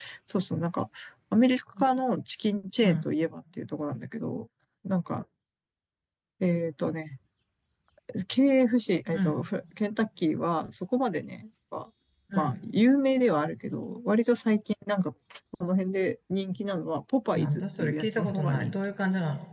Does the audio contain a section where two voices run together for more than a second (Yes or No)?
Yes